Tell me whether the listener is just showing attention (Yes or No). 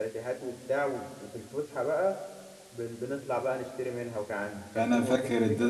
No